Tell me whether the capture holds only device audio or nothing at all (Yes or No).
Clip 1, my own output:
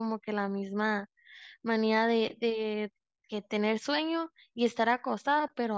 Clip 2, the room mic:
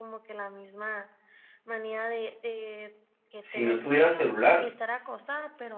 No